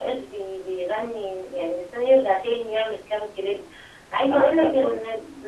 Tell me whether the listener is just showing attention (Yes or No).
Yes